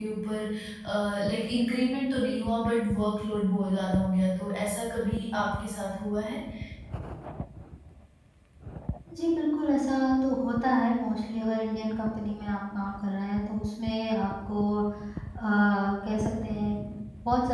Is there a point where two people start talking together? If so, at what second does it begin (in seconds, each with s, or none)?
none